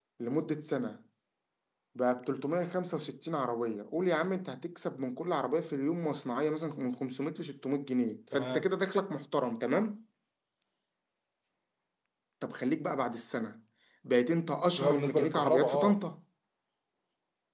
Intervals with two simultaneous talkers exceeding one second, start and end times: 14.7-16.0

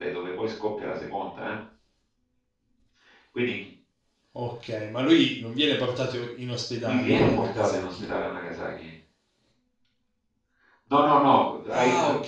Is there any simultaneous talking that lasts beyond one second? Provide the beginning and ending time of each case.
6.8-8.1

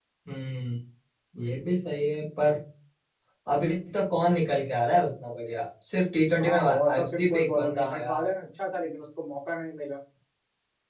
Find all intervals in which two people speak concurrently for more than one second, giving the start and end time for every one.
6.4-8.3

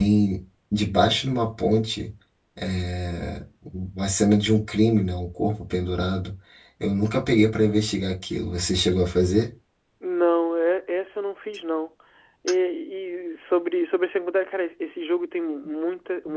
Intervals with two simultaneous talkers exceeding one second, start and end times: none

